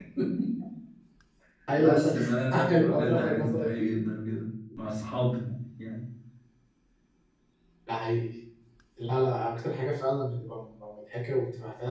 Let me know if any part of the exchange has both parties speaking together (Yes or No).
Yes